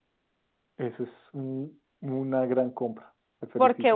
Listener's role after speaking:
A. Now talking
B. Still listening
A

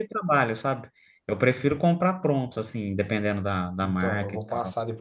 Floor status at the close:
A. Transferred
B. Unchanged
A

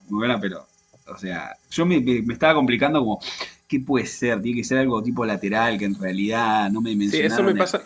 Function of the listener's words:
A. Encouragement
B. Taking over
B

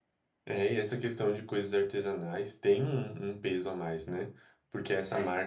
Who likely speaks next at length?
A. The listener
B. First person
B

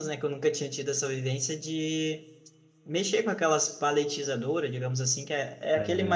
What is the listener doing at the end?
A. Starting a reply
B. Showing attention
B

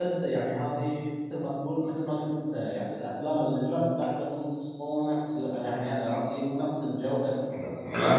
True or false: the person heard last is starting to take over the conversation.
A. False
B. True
B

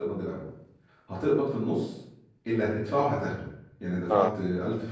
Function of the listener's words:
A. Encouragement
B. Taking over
A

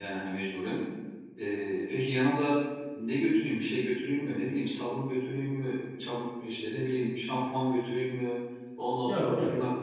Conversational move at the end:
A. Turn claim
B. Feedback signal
B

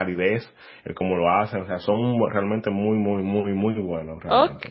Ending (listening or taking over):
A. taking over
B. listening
A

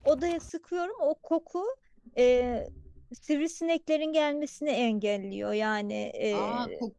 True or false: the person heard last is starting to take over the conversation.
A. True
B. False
A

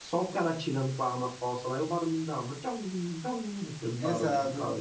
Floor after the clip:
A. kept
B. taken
B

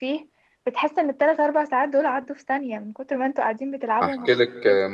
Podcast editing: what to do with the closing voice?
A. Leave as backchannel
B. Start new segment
B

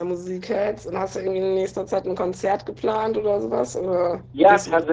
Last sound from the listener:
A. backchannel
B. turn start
B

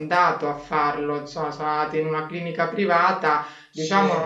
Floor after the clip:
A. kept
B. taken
A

